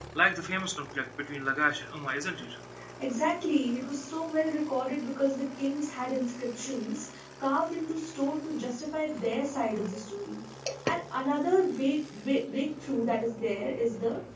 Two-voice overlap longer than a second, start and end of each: none

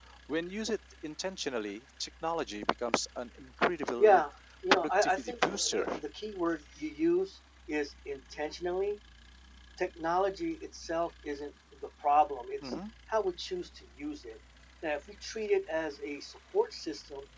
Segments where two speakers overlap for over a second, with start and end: 4.7-6.0

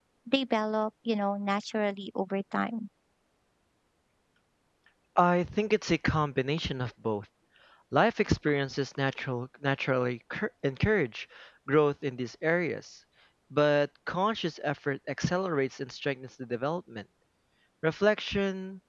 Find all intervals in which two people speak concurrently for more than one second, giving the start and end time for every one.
none

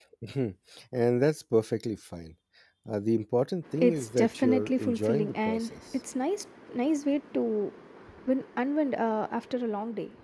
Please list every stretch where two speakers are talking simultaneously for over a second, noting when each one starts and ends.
3.8-5.8

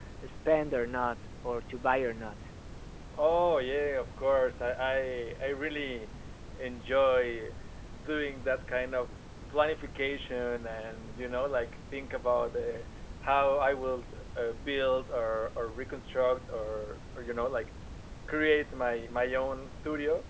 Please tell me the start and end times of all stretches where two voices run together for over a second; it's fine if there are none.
none

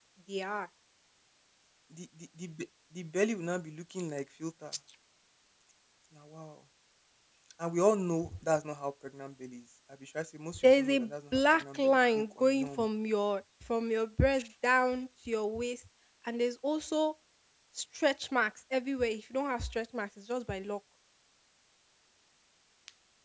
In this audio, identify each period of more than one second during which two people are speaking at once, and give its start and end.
10.6-12.8

